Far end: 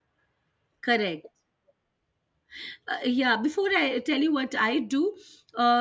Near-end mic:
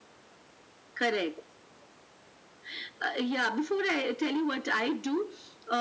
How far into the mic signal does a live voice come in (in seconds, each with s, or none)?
none